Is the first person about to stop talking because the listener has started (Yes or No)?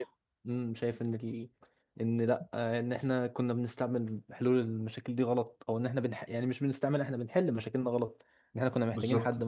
No